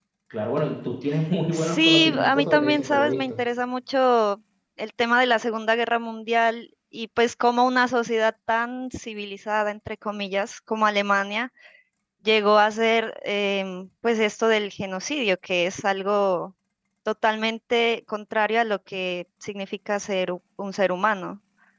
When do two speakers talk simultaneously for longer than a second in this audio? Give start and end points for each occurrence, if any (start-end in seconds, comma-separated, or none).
1.5-3.4